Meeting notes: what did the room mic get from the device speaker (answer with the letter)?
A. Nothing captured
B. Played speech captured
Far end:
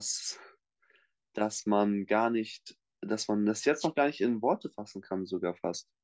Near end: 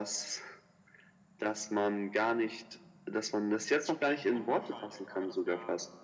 B